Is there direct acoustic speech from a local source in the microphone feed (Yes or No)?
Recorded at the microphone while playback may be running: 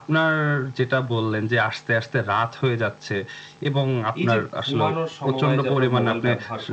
Yes